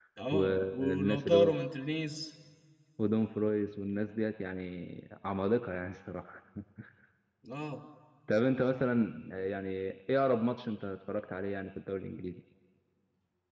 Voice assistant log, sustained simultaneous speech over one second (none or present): present